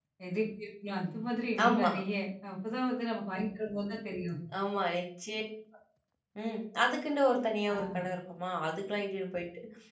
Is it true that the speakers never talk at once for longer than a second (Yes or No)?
Yes